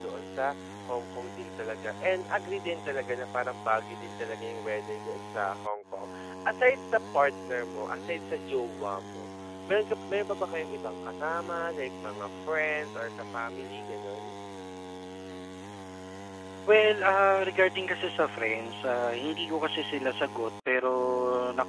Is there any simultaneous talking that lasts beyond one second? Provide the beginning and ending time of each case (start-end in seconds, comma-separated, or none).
none